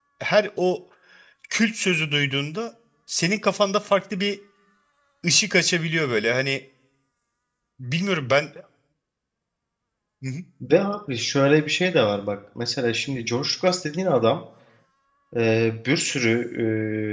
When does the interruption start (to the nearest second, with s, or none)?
none